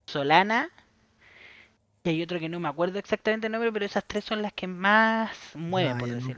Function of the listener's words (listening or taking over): taking over